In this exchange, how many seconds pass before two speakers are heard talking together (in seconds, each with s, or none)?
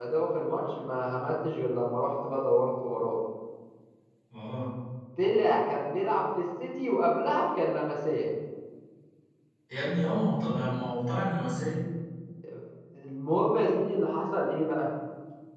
none